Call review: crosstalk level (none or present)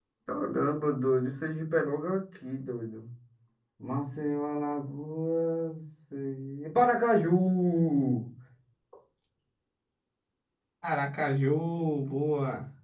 none